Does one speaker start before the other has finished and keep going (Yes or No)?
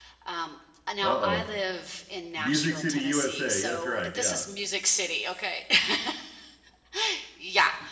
Yes